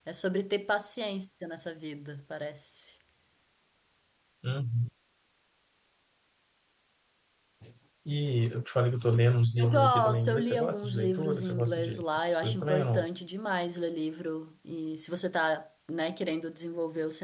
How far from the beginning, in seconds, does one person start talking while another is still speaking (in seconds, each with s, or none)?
9.6 s